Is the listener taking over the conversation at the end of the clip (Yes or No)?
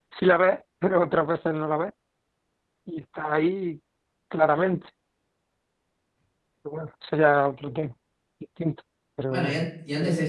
Yes